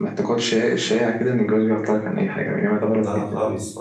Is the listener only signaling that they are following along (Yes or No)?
No